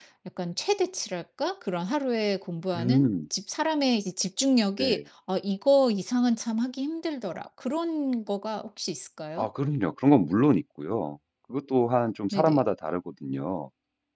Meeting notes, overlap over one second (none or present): none